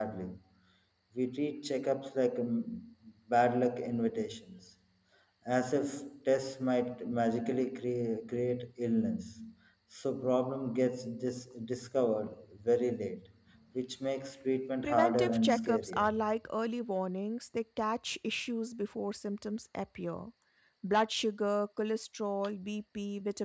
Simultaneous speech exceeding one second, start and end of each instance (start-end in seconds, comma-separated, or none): 14.8-16.1